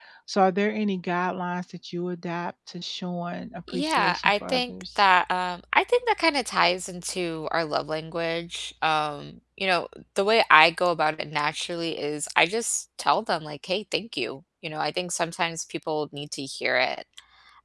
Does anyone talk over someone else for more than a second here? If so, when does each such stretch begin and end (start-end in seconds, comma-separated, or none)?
3.7-5.0